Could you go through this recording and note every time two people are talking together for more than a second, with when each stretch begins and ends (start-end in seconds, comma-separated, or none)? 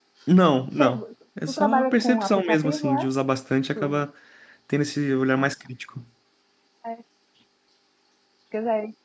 1.5-3.1